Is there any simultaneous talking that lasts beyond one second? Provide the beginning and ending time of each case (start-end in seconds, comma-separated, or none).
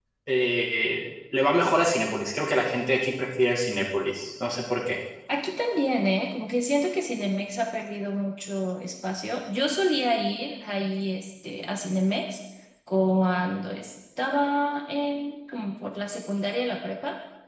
none